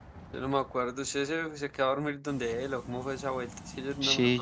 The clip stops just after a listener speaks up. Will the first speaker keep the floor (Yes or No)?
No